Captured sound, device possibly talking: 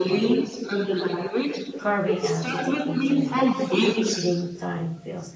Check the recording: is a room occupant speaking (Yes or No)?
Yes